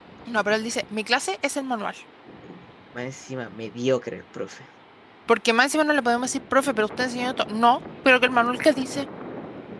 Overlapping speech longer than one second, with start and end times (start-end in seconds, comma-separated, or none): none